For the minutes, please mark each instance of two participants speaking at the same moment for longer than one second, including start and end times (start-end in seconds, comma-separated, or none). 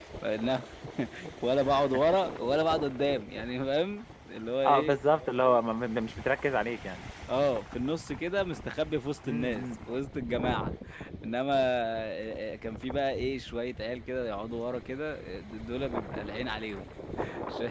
none